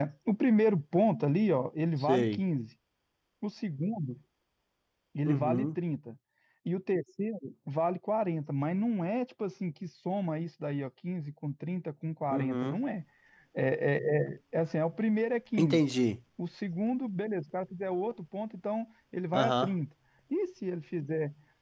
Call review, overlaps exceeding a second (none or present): none